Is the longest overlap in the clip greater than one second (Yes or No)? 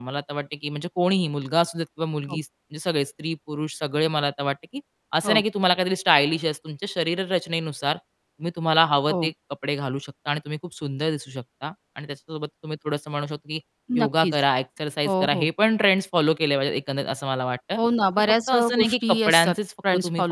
Yes